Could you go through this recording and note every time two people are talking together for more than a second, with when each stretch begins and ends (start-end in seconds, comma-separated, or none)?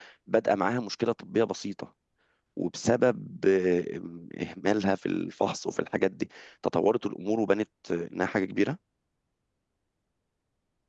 none